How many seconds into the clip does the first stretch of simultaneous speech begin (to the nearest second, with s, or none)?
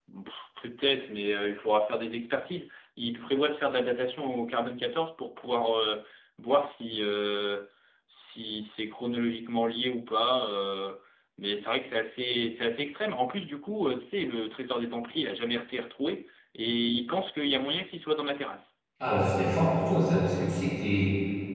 none